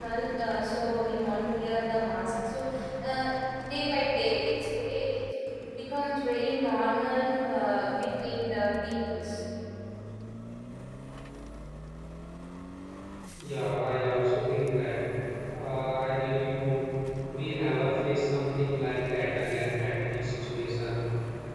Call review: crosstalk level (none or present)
none